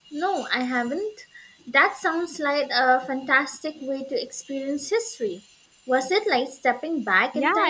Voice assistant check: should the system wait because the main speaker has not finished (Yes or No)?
No